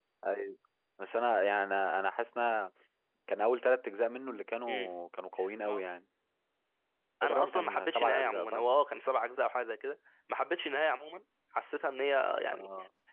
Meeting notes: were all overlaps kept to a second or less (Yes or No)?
No